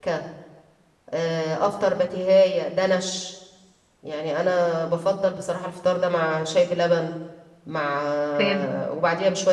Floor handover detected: No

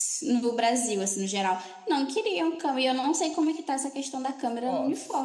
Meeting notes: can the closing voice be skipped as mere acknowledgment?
No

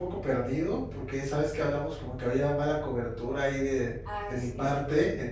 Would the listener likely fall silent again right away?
Yes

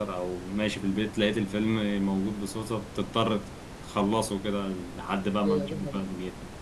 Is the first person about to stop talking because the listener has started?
Yes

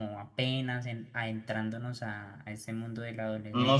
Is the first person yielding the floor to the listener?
Yes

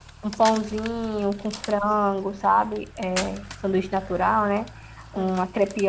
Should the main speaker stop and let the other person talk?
No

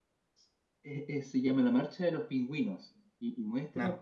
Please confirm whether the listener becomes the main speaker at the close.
No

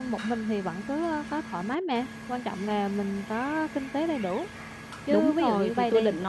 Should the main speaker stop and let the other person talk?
Yes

